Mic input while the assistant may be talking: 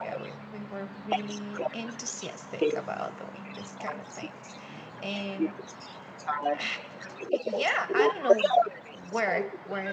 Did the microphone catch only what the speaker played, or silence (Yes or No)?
No